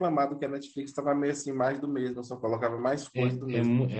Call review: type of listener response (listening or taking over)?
taking over